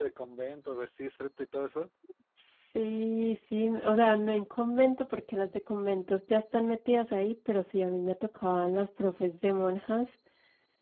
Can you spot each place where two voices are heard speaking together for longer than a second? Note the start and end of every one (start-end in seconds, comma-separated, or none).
none